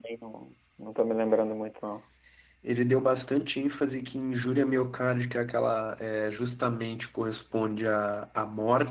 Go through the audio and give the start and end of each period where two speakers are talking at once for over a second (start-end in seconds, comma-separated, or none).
none